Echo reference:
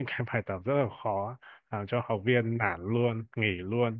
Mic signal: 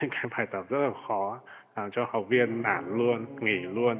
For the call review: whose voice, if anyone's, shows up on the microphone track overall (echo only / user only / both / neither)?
both